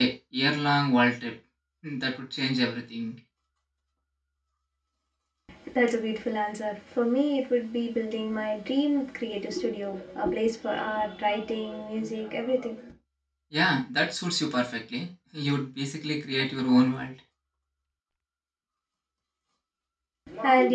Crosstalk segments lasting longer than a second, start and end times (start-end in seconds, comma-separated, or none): none